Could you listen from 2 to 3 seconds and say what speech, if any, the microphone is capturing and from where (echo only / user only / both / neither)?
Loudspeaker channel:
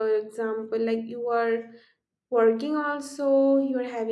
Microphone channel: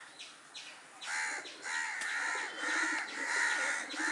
neither